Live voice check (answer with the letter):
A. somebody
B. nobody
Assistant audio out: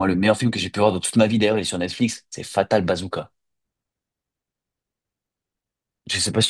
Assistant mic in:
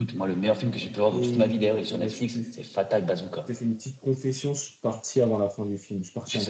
A